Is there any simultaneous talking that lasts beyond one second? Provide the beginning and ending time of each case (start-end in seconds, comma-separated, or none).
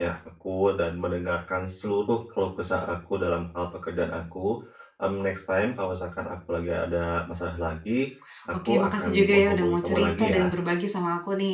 8.5-10.5